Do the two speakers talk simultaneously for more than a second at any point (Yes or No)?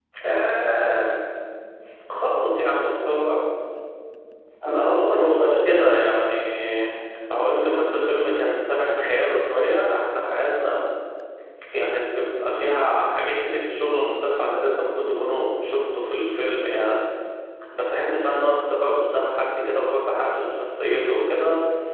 Yes